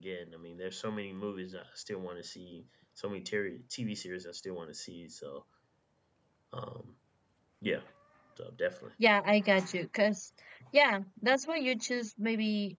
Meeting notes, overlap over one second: none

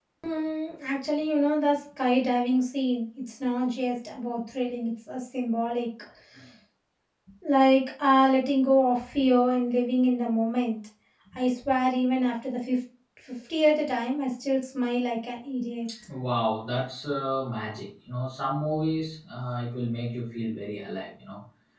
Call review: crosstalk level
none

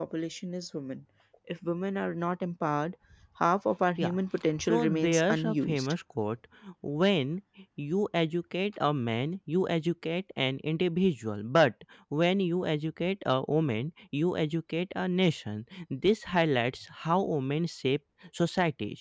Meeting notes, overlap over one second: present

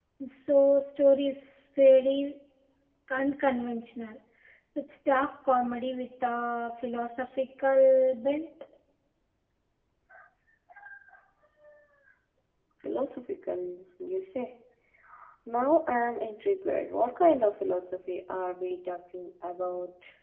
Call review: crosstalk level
none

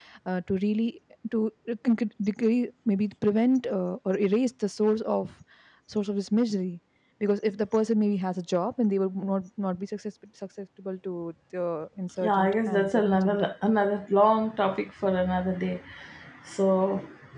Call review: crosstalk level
present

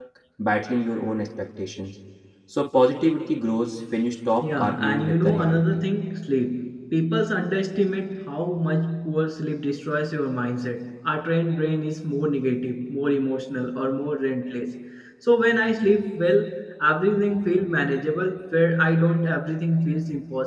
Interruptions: present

